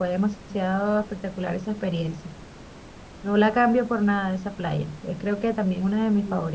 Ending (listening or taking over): taking over